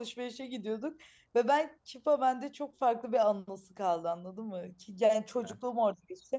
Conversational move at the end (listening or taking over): listening